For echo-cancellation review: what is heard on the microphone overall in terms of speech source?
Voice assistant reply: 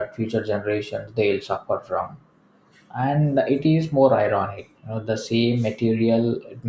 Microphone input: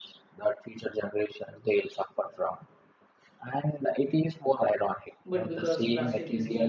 both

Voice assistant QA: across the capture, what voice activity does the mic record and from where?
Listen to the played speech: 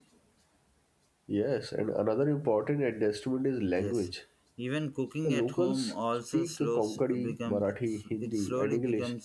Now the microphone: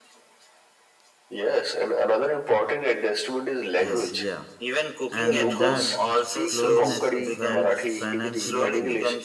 both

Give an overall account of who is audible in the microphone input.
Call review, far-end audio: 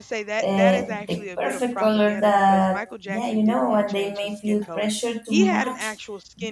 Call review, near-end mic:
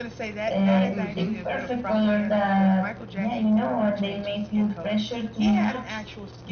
both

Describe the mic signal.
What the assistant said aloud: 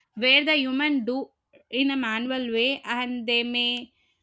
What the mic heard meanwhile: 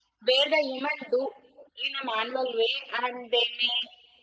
echo only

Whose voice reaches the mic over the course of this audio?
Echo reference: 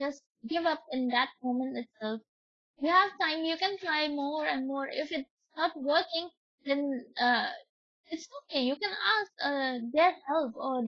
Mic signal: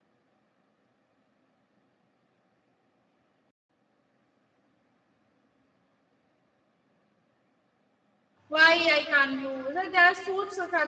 user only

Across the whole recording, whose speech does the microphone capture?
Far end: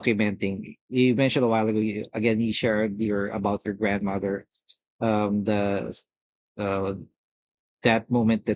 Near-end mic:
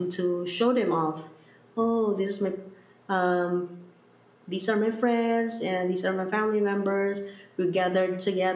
user only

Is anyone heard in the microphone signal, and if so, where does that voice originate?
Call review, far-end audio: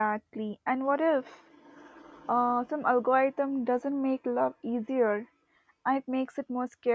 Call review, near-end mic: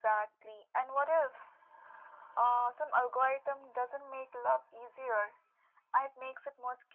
echo only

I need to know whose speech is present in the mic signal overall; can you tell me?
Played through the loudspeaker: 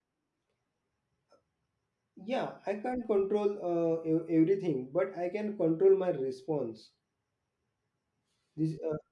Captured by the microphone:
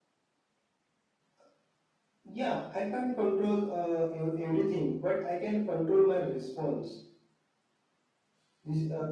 echo only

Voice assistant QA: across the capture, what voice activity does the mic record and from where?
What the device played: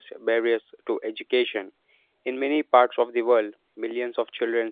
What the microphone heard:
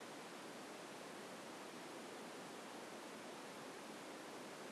neither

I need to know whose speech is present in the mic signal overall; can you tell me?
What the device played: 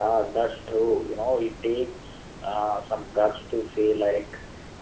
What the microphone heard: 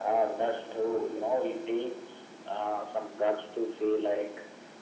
echo only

